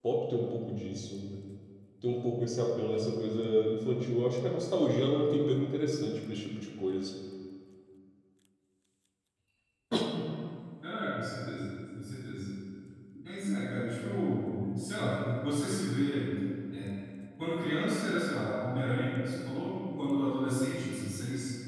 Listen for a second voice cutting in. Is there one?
No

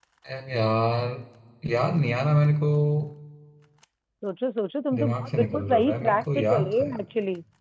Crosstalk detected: Yes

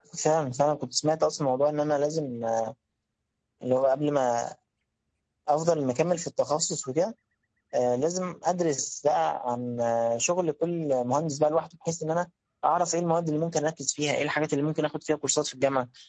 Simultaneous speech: No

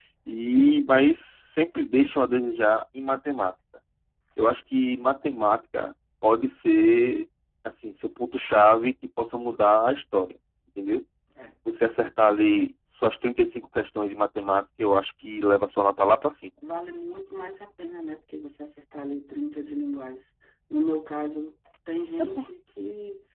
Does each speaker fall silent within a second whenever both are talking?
Yes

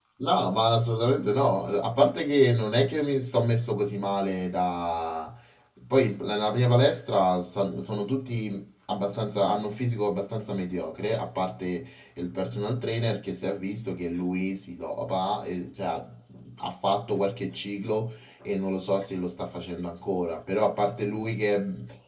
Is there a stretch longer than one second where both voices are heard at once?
No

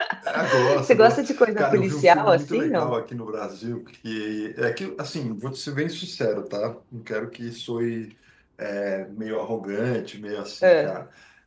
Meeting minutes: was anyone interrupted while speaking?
Yes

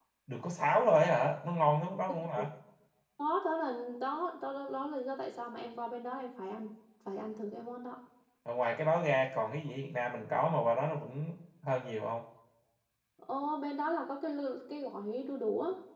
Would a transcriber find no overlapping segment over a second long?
Yes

